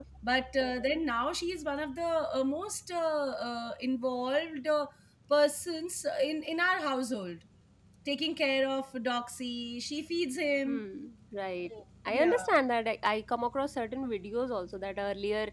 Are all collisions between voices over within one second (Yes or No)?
Yes